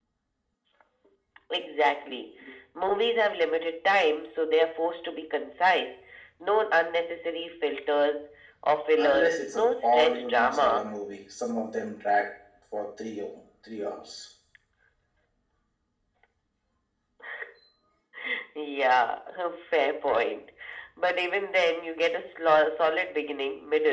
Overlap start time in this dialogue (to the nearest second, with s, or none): 9 s